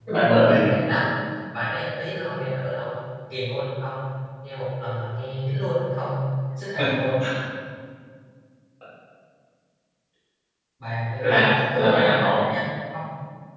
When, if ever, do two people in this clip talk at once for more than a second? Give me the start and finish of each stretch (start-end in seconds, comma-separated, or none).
11.2-12.4